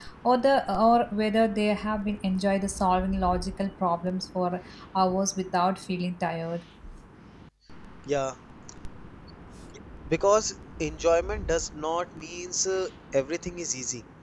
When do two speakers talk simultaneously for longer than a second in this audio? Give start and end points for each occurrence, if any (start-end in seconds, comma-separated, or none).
none